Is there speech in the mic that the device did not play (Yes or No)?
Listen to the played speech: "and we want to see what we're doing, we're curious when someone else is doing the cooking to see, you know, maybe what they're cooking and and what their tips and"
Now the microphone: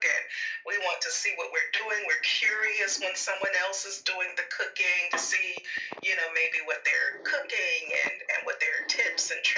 No